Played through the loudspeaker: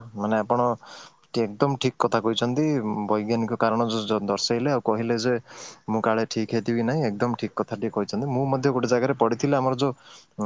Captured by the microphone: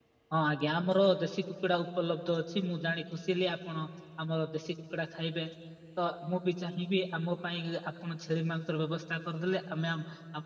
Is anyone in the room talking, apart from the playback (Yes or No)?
Yes